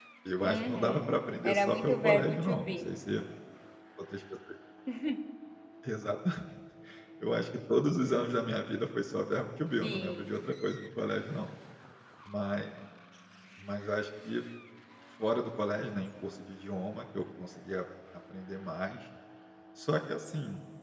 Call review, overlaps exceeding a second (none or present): present